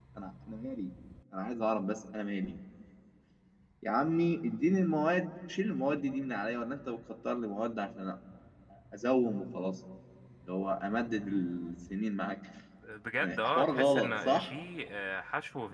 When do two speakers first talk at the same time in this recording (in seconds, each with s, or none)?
13.2 s